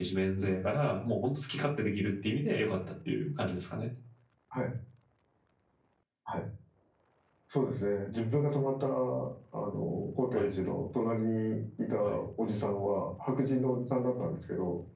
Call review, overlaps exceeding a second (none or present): none